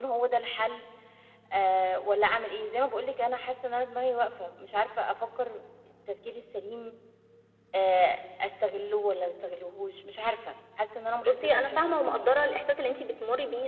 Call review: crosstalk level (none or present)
present